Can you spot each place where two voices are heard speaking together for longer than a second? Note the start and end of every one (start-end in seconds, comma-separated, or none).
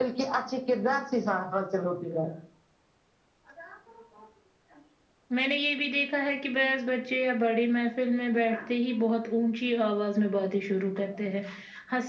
none